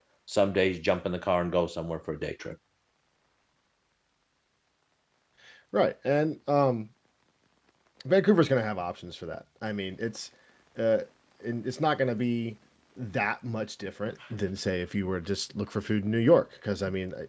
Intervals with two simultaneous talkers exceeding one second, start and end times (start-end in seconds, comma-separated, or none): none